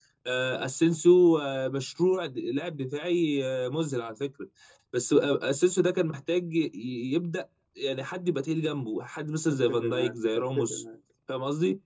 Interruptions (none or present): present